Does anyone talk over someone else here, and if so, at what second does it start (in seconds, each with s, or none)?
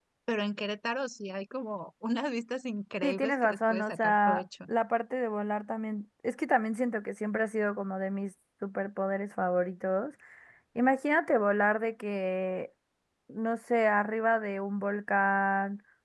3.0 s